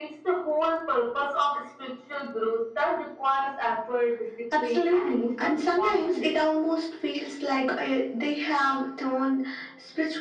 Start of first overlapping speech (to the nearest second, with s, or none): 5 s